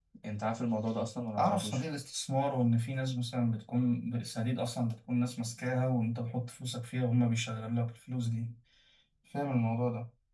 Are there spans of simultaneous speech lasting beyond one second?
No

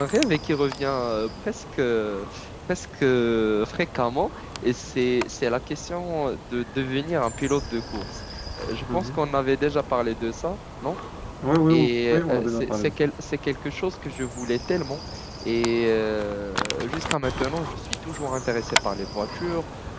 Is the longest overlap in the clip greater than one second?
Yes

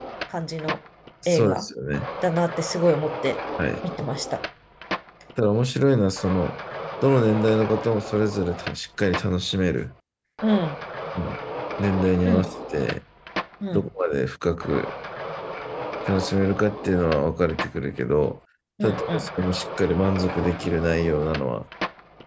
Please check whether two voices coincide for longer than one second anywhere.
No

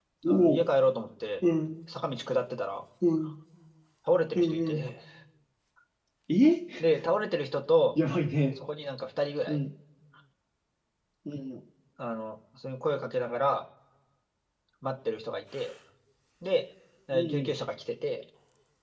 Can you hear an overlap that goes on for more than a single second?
No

